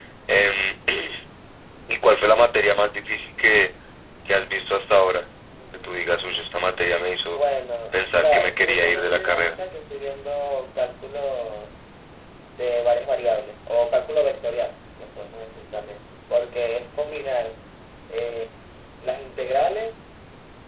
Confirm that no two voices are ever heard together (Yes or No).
No